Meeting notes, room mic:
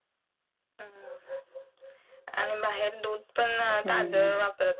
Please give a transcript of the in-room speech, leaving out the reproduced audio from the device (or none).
हु हु